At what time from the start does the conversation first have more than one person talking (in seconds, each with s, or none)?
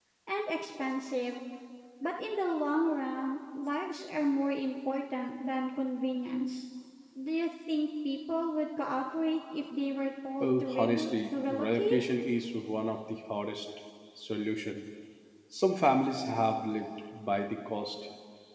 10.4 s